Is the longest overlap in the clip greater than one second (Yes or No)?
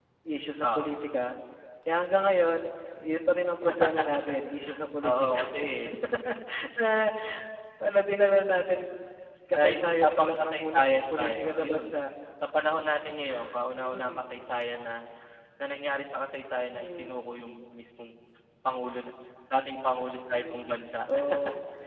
Yes